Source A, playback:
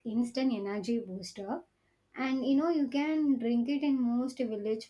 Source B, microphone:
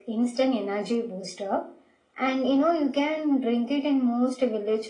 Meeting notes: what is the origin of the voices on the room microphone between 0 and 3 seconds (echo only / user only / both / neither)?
echo only